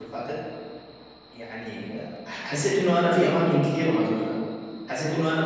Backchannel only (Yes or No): Yes